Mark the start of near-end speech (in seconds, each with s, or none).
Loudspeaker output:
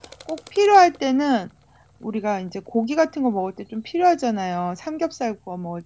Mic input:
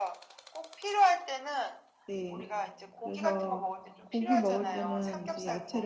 2.1 s